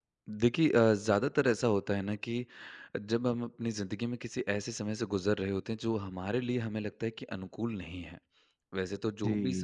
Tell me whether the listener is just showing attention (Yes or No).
Yes